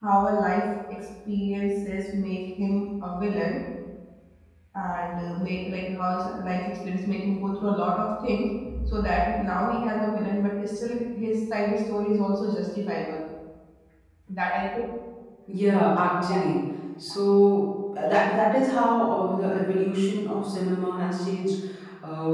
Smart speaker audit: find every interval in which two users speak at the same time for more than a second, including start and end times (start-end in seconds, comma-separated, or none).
none